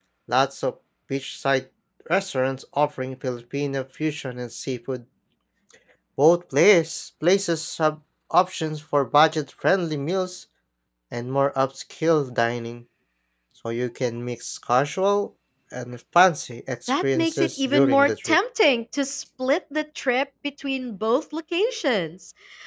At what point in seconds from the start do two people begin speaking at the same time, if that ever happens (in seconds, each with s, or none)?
16.9 s